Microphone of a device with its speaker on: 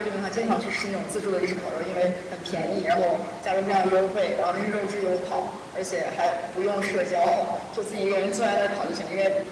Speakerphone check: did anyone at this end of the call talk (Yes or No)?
No